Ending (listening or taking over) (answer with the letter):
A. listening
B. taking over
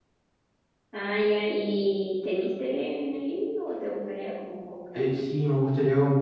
B